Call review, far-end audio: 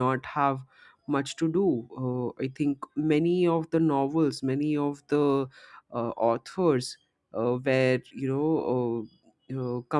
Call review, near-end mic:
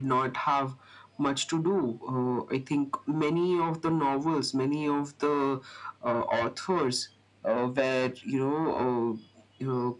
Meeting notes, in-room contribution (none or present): none